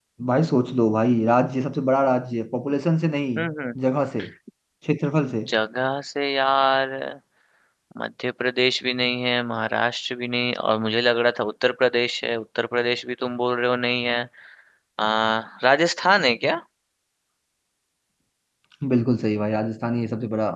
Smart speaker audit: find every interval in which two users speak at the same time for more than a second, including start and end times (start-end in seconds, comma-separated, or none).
none